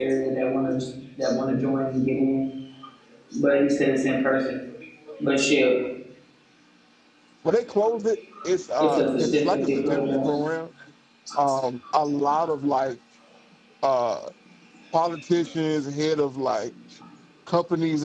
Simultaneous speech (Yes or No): Yes